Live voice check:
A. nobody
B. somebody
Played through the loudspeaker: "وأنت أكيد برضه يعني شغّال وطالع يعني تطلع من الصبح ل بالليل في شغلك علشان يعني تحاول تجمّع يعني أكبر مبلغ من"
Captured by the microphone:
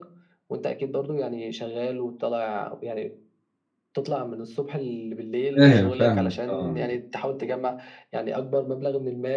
B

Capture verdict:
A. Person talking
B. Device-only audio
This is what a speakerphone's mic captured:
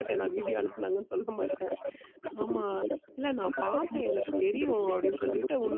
A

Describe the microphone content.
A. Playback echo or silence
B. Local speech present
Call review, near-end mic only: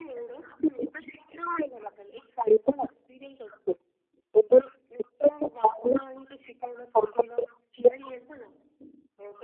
A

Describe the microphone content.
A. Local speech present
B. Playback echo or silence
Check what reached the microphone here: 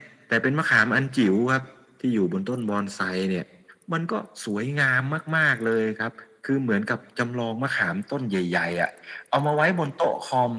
B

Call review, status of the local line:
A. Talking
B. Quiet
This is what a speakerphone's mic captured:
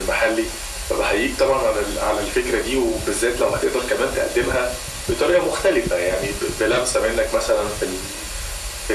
B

